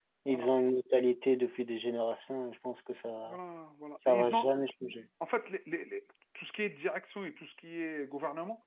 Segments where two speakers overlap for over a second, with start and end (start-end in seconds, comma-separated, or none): none